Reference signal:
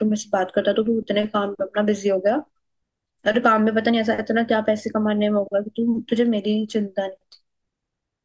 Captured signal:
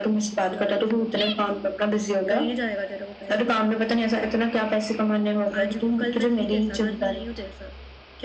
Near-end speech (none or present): present